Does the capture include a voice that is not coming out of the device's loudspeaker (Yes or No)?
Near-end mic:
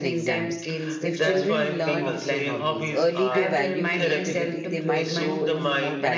Yes